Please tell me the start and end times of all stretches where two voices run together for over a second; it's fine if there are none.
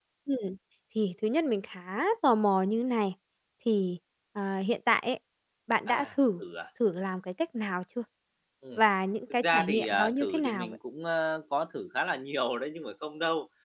9.4-10.8

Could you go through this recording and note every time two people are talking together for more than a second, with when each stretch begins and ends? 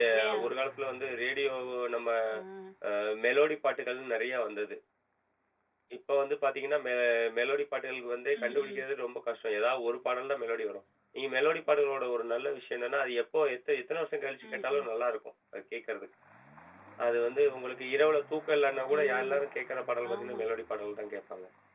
none

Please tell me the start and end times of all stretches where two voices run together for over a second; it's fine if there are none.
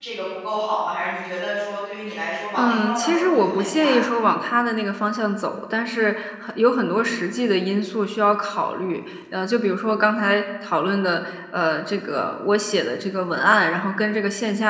2.5-4.1

